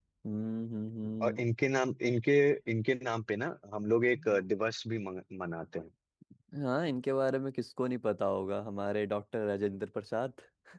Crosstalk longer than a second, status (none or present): none